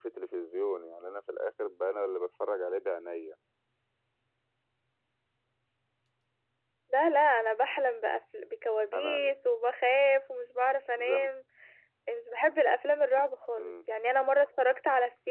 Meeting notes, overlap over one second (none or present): none